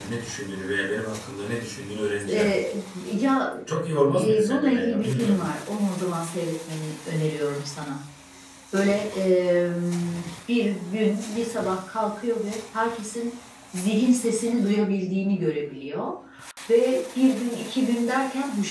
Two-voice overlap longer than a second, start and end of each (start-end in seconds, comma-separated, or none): 4.1-5.5